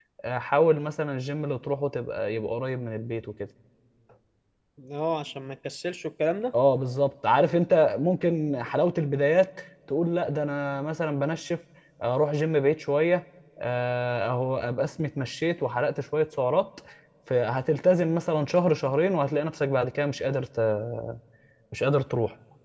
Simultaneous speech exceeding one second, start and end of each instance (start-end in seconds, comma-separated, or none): none